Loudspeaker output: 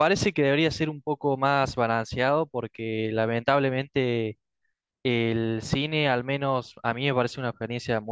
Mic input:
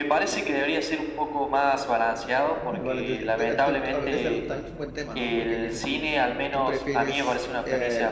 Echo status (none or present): present